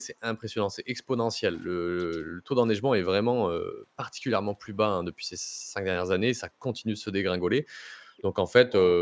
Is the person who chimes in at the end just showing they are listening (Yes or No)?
Yes